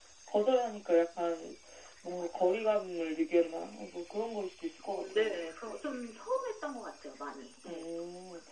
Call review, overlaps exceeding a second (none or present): none